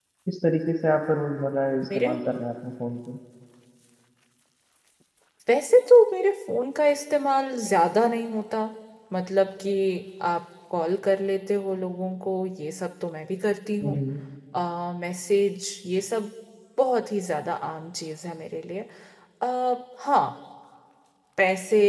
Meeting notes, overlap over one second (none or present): none